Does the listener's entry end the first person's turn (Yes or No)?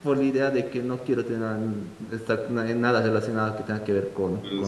Yes